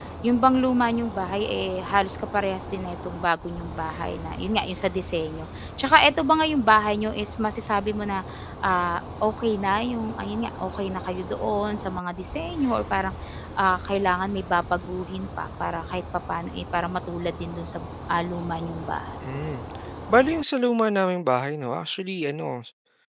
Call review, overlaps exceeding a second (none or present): none